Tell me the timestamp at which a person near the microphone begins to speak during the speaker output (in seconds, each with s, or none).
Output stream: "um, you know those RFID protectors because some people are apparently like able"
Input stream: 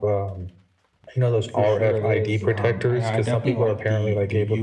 1.5 s